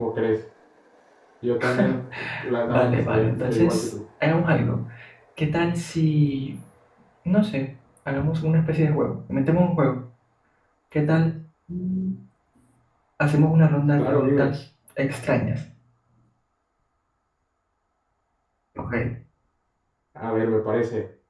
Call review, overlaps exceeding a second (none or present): present